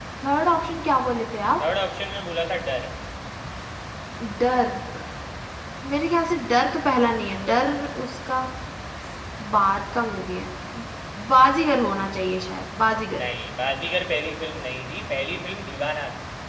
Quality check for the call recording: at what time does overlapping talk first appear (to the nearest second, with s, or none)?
none